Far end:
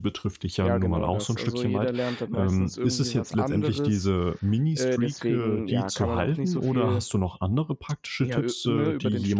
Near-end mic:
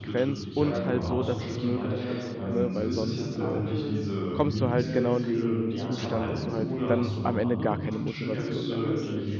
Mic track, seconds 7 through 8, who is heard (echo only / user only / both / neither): both